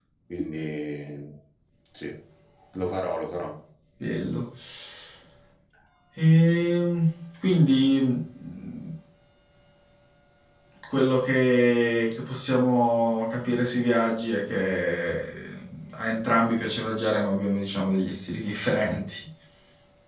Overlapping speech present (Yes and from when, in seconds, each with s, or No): No